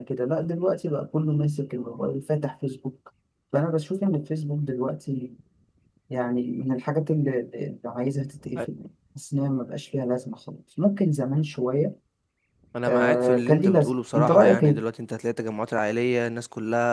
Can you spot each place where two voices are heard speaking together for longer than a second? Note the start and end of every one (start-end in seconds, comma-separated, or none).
12.9-14.8